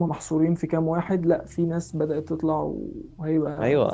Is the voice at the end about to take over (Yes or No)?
Yes